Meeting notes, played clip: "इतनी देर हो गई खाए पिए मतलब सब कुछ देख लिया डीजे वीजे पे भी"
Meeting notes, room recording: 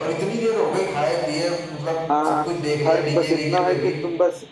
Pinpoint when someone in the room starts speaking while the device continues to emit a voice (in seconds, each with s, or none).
2.1 s